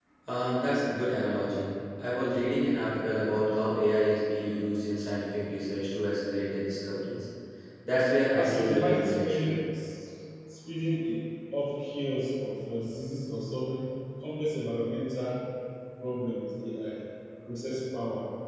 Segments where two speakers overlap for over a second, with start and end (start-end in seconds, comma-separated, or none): 8.4-9.6